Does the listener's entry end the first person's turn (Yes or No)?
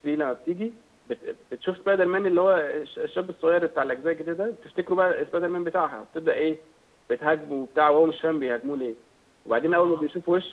No